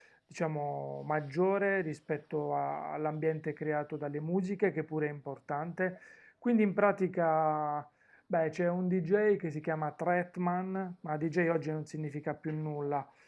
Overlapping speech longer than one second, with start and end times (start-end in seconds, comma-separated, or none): none